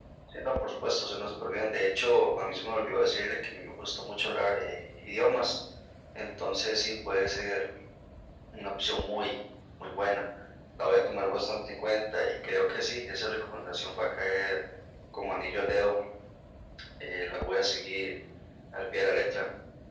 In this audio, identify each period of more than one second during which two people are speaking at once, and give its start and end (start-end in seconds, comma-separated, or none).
none